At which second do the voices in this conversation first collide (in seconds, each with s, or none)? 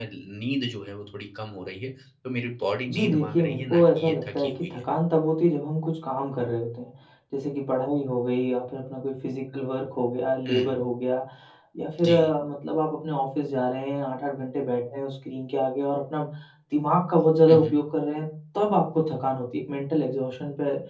2.9 s